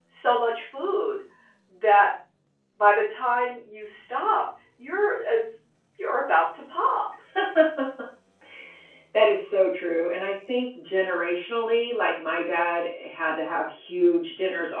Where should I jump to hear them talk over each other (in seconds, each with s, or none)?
none